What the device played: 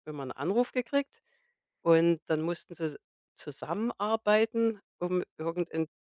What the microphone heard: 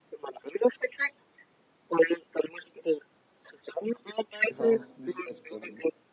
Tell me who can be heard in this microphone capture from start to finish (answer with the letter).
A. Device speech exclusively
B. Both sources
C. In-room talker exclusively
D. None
B